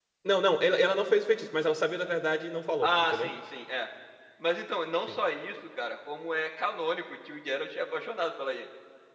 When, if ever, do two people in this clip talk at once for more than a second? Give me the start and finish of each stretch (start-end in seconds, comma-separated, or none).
none